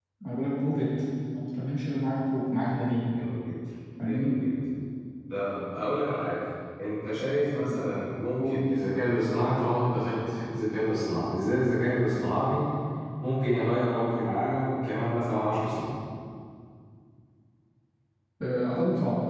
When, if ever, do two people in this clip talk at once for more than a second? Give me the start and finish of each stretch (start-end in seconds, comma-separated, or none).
none